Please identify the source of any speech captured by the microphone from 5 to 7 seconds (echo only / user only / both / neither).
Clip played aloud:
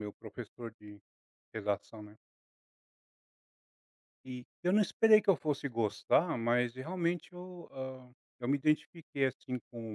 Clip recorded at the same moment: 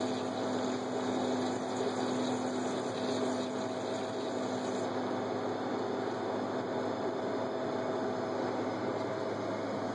neither